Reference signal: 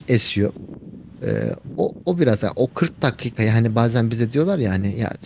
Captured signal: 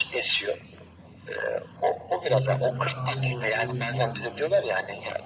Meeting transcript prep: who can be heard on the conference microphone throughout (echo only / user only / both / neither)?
both